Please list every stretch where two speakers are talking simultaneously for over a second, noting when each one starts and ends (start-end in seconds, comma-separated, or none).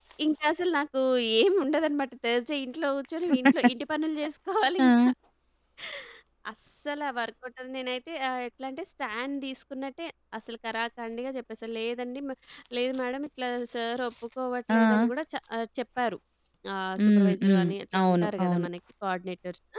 17.0-18.7